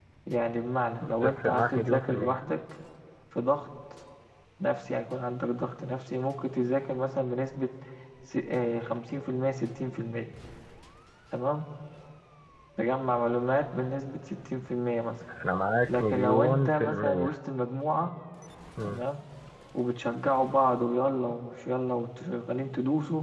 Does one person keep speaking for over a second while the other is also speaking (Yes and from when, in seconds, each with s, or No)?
Yes, from 1.0 s